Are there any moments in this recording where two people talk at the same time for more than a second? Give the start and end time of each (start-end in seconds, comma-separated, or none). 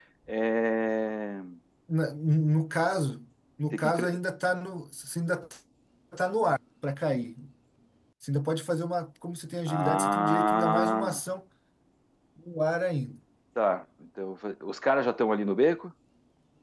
9.7-11.2